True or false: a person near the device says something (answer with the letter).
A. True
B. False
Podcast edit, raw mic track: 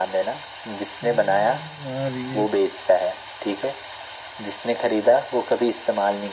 A